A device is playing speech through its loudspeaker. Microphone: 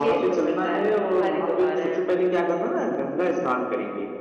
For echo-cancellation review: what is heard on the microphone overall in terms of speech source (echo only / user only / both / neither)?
echo only